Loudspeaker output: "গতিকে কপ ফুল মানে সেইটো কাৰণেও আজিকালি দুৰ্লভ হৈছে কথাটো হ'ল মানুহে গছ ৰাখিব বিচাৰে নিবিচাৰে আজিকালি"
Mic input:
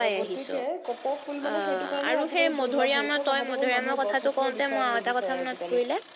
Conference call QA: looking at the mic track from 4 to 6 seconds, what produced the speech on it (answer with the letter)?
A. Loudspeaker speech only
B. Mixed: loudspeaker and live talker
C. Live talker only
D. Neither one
B